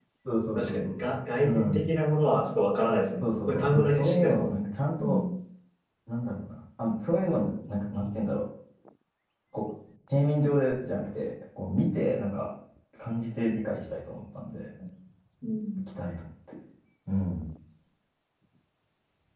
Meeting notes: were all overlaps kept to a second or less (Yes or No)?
No